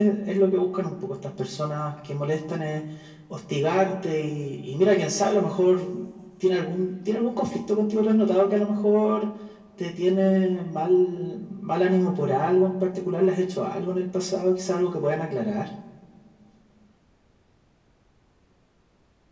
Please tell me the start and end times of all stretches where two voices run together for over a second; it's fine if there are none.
none

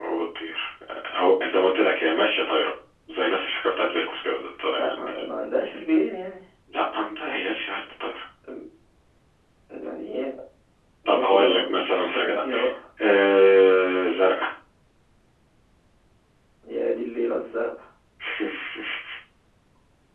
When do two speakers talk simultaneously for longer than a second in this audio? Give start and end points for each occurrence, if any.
11.1-12.4

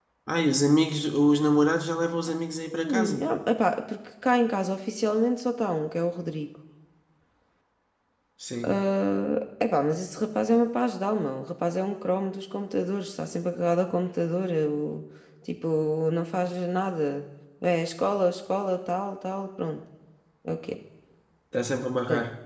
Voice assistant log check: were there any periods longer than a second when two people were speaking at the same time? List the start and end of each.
none

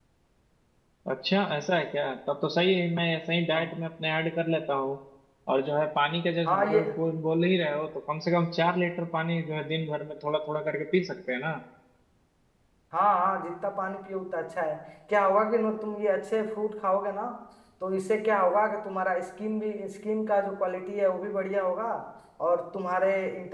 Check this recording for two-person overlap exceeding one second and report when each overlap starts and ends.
none

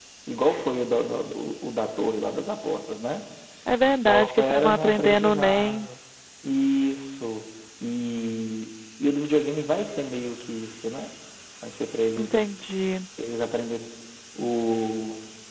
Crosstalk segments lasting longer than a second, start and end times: 4.1-5.9

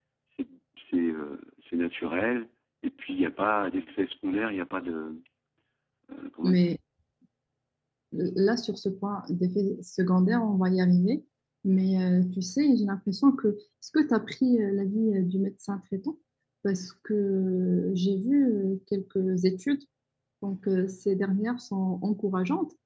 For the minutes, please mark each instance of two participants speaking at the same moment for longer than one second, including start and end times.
none

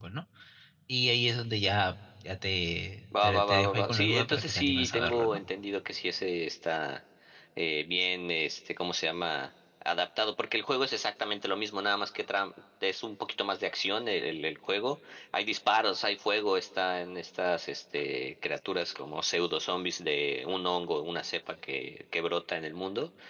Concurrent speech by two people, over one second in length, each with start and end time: 3.2-5.4

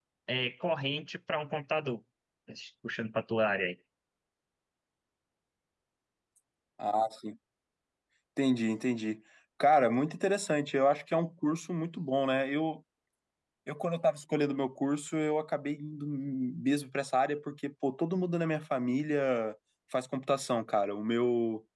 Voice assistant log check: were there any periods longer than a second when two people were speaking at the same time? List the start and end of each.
none

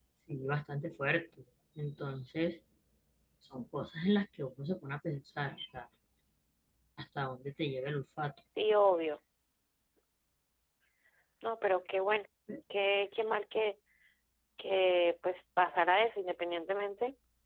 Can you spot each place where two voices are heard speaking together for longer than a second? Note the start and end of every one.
none

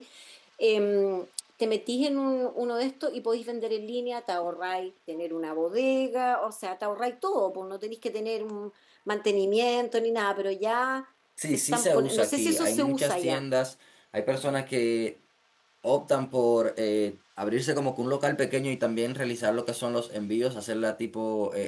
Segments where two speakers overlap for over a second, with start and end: 11.5-13.4

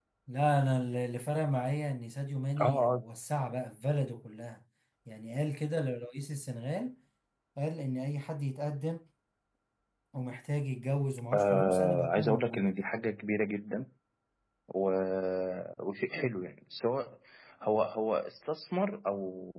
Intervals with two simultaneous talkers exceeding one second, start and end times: 11.3-12.6

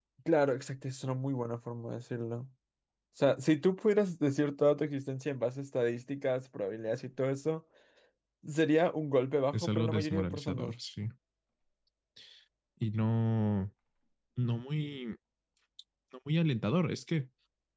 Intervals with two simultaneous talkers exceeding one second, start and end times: 9.5-10.8

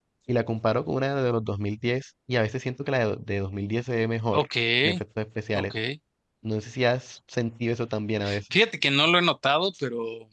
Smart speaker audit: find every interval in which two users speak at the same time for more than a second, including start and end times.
none

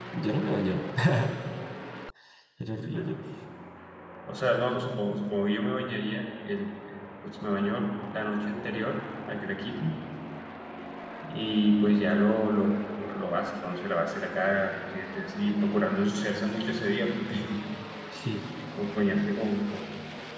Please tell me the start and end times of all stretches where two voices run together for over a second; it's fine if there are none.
none

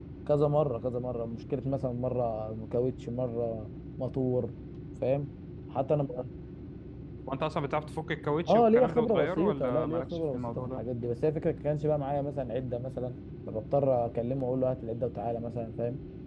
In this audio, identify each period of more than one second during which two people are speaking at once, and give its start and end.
8.5-10.8

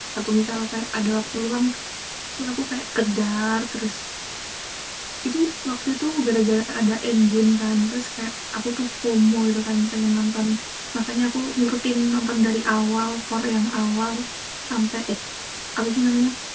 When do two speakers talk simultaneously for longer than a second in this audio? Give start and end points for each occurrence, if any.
none

